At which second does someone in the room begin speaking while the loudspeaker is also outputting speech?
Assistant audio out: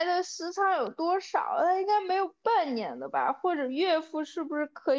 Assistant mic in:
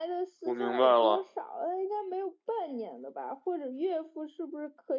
0 s

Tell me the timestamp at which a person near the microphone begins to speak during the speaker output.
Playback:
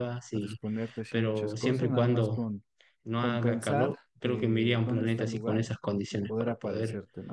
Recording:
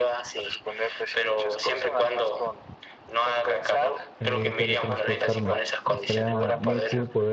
4 s

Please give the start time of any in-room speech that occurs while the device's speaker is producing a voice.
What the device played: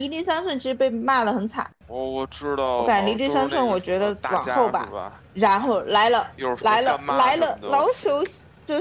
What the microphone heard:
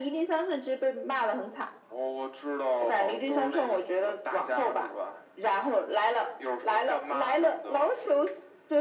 none

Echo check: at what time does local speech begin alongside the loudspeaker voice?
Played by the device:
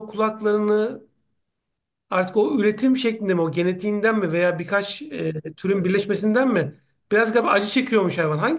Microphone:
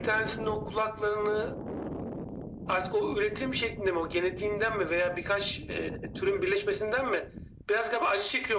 none

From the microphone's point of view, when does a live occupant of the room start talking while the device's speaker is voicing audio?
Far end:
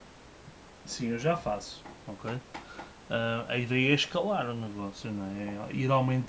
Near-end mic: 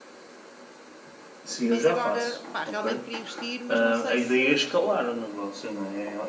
2 s

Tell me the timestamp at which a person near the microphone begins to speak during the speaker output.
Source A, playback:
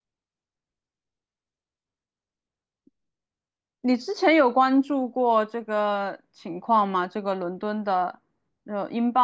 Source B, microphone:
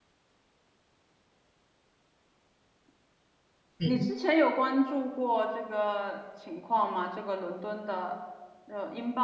4 s

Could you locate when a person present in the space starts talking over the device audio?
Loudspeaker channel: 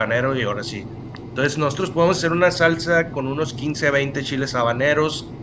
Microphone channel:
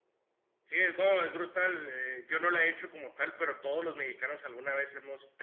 1 s

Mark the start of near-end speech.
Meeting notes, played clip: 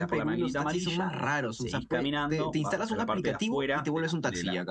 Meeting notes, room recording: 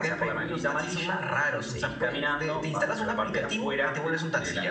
none

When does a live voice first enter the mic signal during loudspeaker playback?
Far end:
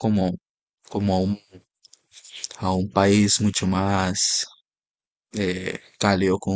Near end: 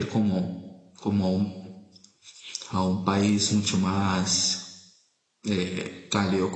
none

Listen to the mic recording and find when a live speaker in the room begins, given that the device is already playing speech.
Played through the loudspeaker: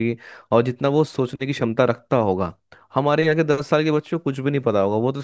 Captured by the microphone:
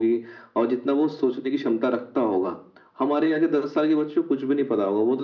none

